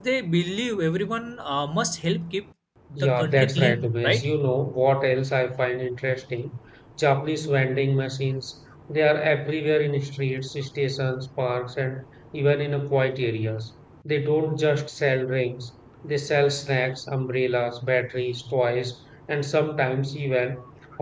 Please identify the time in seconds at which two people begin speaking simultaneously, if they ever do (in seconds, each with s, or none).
3.0 s